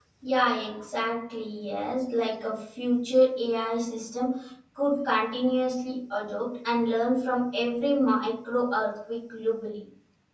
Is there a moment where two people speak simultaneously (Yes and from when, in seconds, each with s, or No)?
No